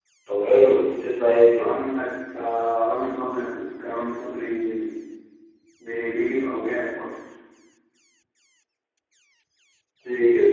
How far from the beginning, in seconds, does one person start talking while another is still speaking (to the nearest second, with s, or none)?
none